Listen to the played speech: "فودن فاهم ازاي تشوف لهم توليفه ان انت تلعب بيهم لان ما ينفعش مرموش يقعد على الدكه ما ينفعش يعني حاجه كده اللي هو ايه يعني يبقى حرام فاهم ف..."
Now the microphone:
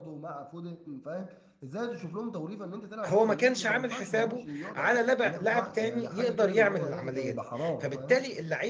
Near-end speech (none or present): present